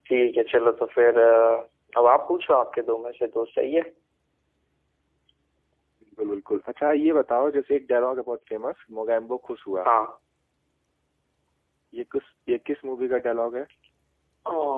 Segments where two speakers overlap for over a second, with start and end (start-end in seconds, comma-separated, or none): none